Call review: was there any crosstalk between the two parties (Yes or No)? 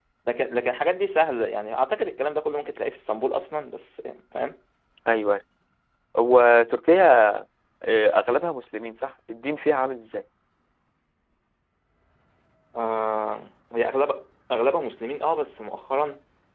No